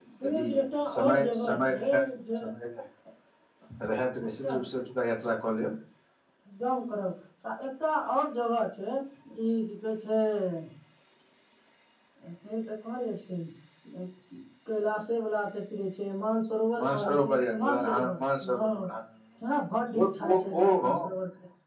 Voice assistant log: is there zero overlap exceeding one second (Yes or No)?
No